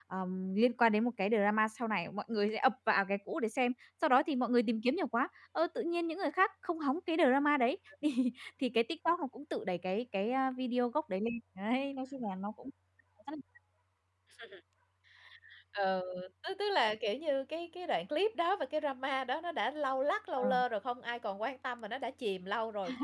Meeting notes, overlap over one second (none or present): none